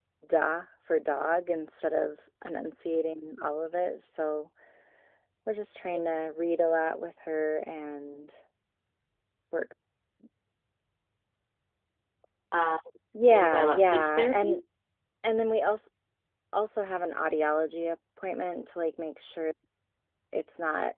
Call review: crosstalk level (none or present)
present